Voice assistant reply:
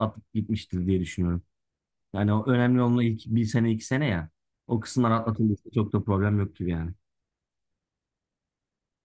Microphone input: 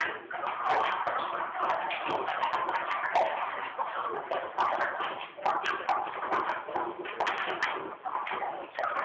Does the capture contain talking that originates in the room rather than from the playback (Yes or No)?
No